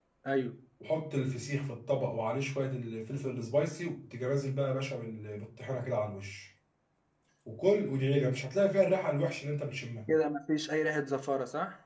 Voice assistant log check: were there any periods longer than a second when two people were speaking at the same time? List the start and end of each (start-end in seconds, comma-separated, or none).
none